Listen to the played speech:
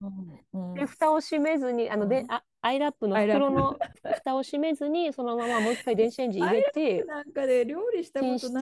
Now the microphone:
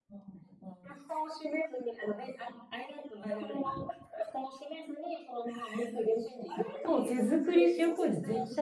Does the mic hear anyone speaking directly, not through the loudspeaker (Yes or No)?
Yes